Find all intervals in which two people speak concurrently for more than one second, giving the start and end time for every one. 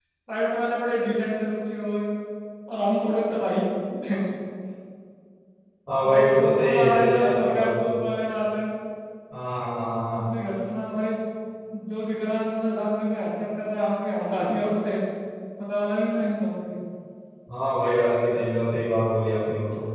6.0-7.9

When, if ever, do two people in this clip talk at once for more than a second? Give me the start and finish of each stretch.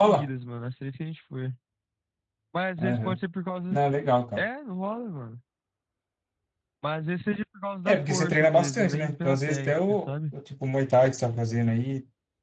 7.9-10.3

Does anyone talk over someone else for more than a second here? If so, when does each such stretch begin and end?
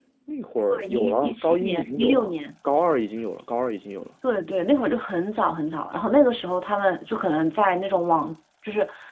0.7-2.4

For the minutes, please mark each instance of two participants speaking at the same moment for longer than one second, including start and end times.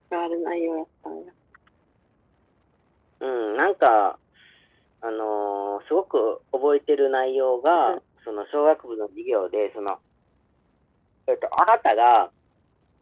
none

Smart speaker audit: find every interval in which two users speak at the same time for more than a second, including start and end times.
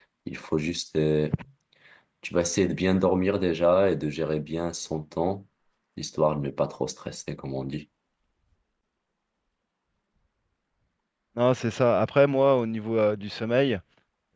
none

